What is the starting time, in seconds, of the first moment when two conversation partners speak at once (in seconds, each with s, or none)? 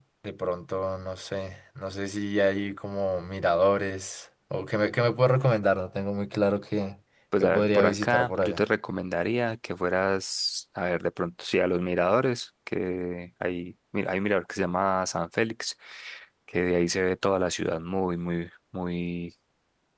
7.3 s